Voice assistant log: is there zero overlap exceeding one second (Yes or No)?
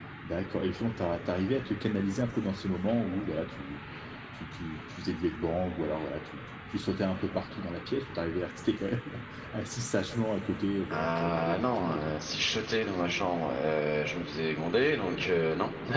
No